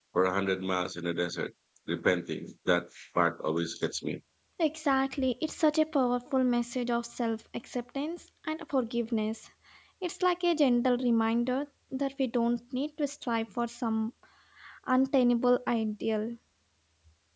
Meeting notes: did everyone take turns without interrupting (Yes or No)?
Yes